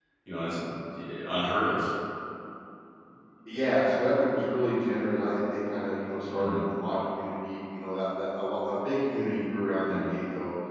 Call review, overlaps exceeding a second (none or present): none